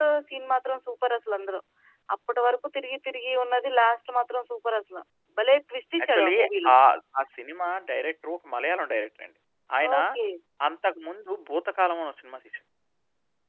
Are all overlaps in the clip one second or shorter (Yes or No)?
Yes